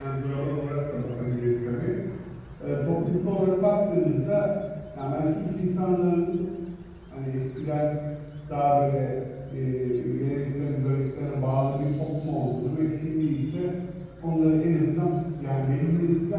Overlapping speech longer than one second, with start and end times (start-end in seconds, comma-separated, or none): none